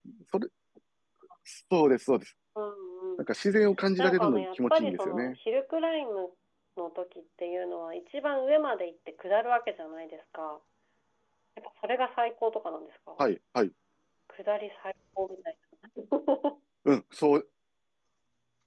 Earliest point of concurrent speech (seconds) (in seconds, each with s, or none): 4.0 s